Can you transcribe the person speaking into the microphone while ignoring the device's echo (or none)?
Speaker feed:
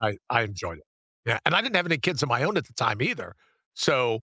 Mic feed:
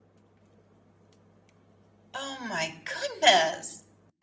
Oh my goodness.